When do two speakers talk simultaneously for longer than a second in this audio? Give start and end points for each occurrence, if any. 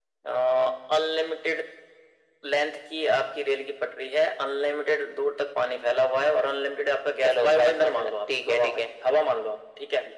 7.2-8.8

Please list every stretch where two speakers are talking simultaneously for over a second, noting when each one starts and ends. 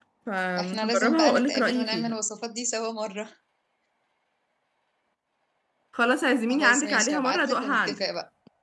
0.6-2.1, 6.5-8.0

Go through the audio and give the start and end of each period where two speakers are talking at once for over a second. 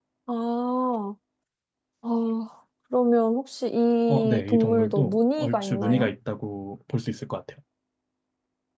4.1-6.1

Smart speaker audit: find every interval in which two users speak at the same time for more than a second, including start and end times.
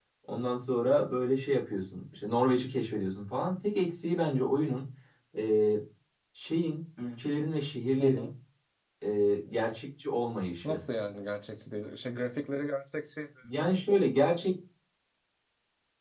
none

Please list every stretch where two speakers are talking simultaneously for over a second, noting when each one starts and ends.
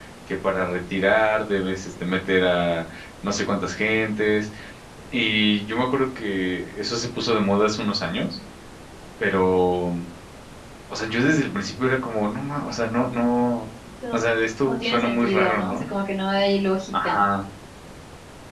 14.6-15.9

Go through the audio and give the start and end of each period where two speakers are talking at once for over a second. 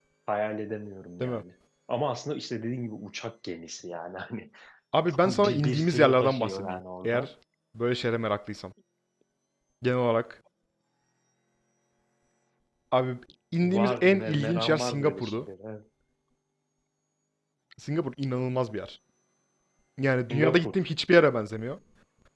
5.1-7.3, 13.6-15.4

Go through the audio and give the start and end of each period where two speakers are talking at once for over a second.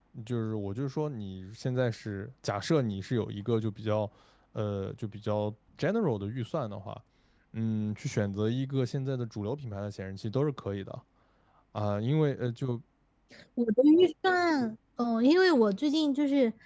none

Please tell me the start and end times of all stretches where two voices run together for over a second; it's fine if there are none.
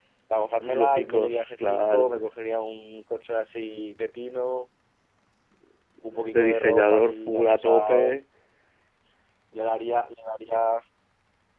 0.7-2.1, 6.3-8.2

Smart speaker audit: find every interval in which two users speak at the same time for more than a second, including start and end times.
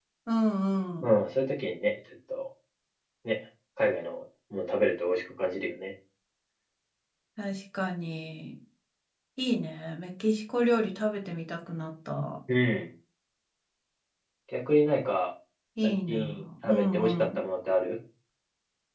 15.8-17.4

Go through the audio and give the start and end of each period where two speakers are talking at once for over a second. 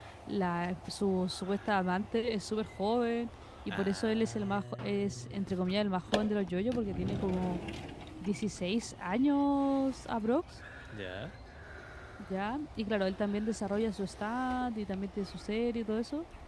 3.7-5.6

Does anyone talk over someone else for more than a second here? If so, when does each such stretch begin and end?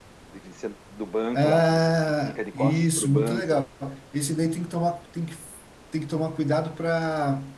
1.3-3.6

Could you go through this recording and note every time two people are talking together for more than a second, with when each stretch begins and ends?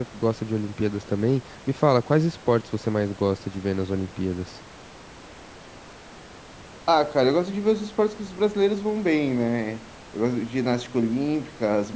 none

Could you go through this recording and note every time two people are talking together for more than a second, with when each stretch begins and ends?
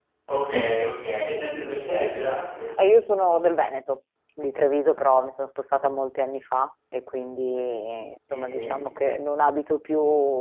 none

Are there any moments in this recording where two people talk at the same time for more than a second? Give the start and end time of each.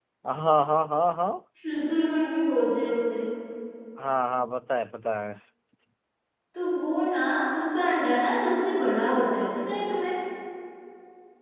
none

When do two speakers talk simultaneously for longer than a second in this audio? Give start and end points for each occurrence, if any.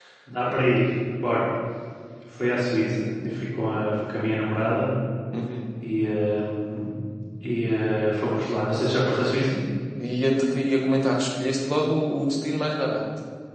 none

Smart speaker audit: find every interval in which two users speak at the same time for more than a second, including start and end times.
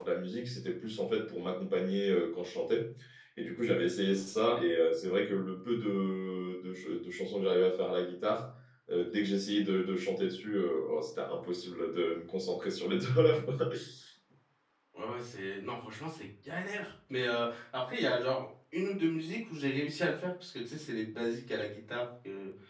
none

